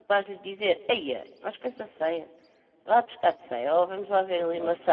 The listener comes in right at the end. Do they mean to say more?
No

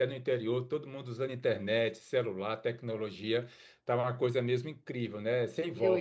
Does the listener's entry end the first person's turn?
Yes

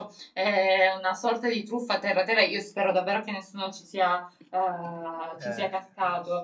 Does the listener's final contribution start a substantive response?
No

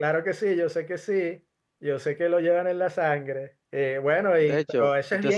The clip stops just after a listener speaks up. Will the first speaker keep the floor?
No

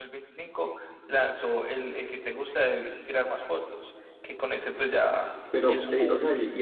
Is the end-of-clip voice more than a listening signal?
Yes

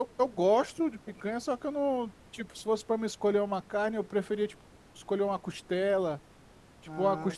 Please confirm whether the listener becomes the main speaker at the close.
No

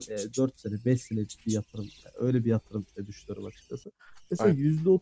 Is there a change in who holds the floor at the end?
No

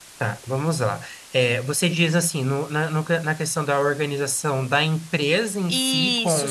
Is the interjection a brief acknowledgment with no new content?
No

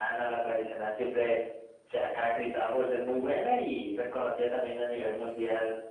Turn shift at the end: No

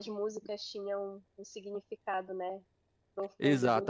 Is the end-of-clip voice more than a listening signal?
Yes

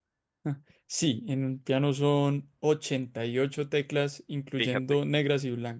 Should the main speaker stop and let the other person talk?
No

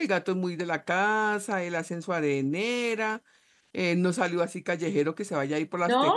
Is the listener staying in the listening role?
Yes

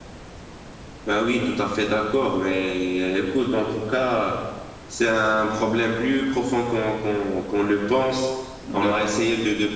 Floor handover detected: No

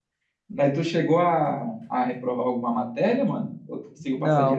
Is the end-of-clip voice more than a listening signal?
Yes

